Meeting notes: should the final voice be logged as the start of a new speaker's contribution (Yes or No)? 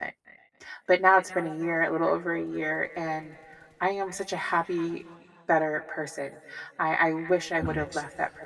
No